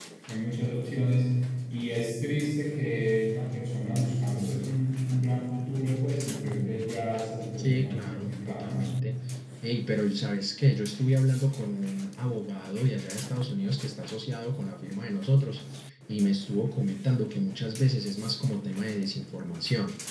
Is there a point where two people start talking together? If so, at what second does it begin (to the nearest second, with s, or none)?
8 s